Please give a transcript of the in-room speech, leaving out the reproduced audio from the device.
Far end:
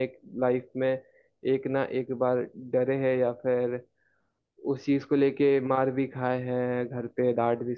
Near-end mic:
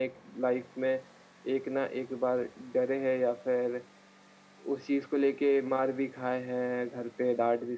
none

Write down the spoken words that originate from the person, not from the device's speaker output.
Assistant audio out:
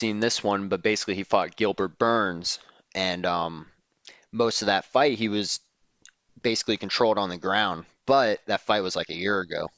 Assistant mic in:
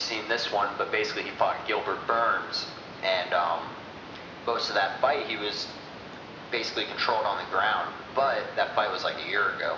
none

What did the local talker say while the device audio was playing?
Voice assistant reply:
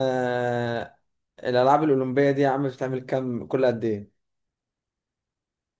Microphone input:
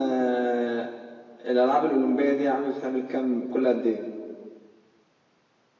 none

